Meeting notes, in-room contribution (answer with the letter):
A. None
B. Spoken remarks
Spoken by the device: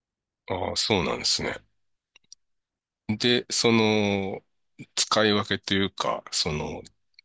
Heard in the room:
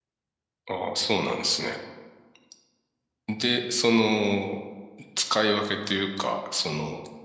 A